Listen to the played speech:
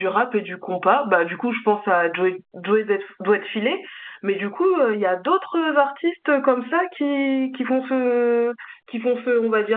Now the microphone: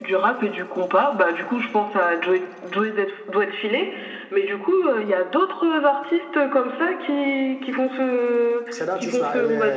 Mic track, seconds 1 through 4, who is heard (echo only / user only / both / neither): echo only